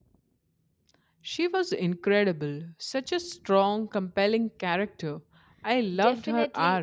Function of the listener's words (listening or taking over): taking over